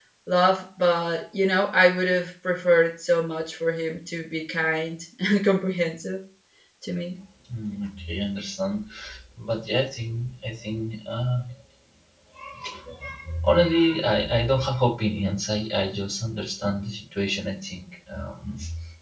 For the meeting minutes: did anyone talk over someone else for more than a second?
No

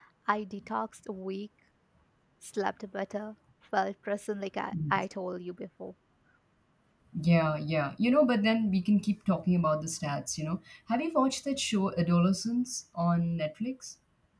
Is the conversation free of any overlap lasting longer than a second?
Yes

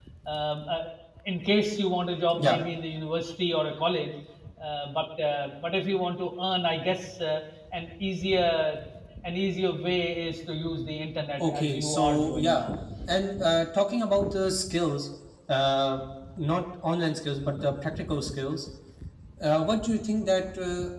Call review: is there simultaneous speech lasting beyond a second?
Yes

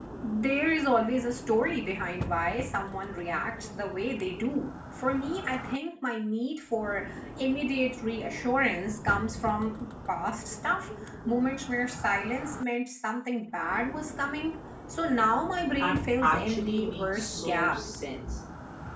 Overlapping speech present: Yes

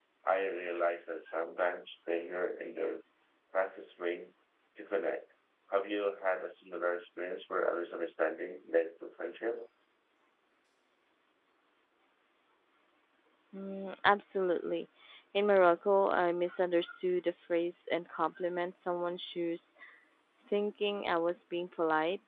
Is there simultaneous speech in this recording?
No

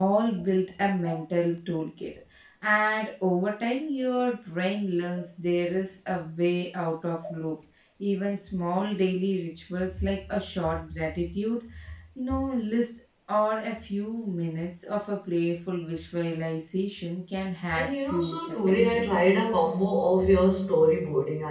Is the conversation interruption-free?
No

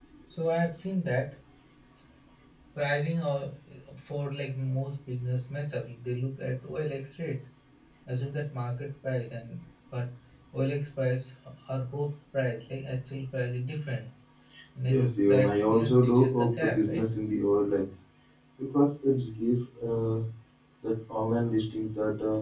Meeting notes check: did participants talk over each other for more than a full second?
Yes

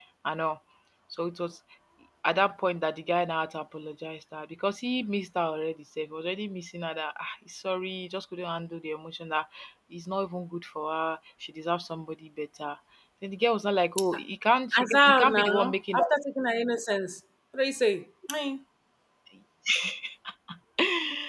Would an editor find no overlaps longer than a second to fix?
No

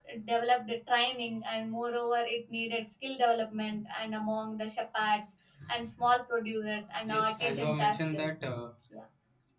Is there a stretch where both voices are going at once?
Yes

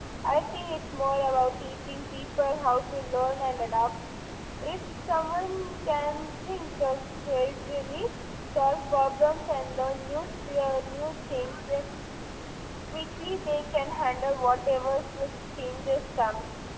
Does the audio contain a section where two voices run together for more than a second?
No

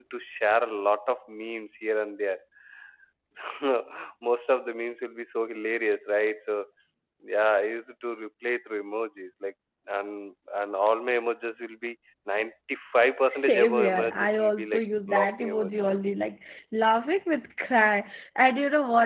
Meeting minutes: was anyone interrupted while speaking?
Yes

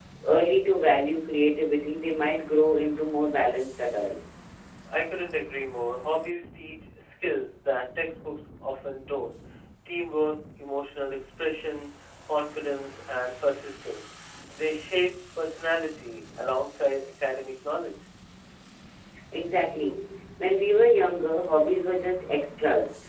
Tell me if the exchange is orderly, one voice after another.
Yes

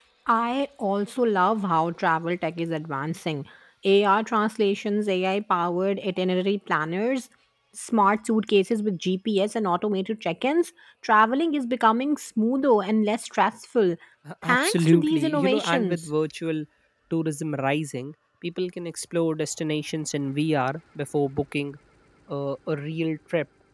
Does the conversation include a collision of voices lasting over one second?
Yes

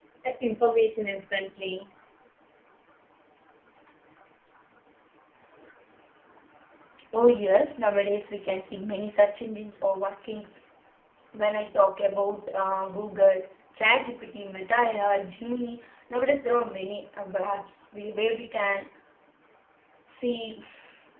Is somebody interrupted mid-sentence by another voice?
No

